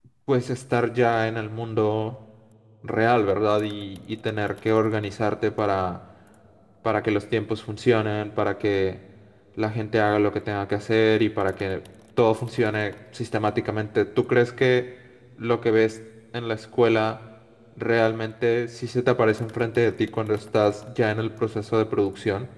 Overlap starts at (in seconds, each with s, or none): none